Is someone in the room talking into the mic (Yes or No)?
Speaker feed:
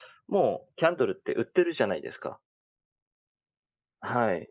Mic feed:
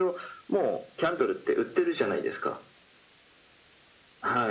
No